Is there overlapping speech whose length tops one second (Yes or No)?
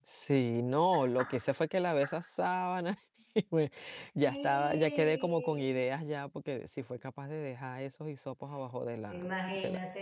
Yes